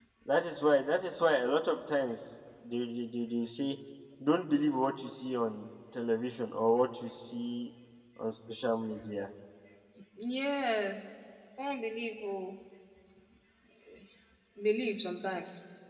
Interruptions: none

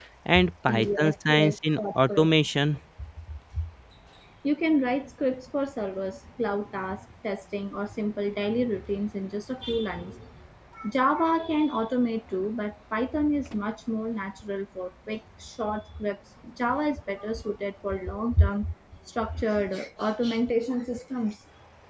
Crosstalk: present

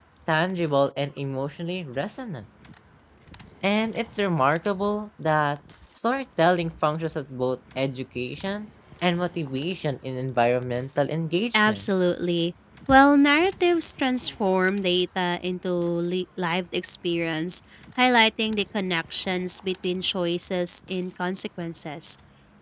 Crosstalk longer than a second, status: none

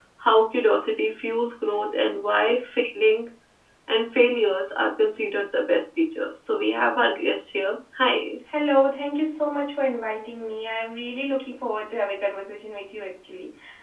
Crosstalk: none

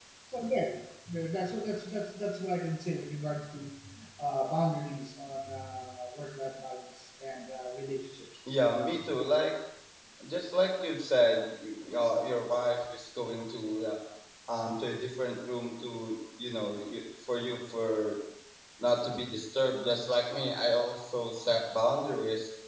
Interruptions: none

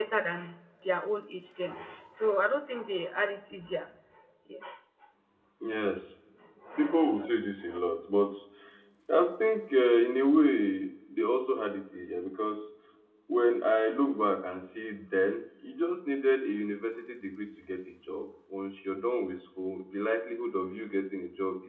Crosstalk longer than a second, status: none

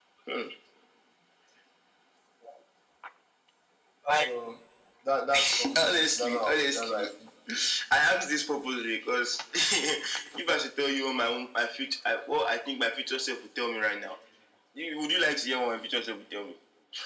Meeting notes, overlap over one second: present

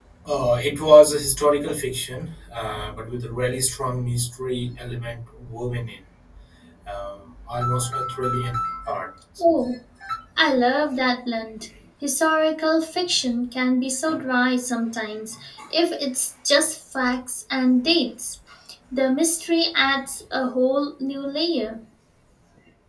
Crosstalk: none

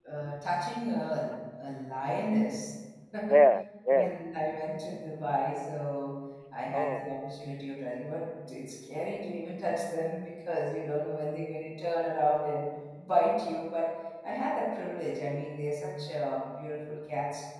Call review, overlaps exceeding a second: none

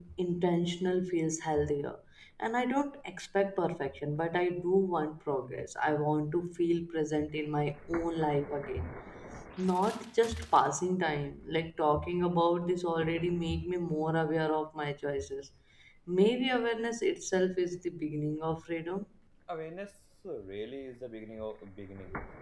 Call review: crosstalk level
none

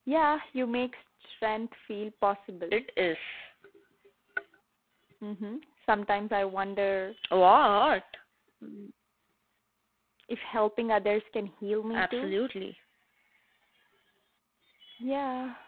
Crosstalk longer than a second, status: none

